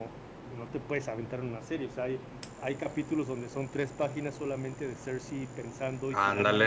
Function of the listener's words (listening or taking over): listening